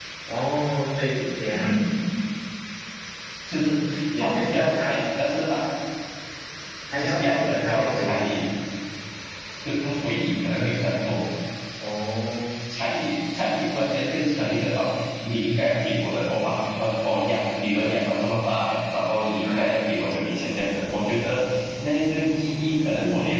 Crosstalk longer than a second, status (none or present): present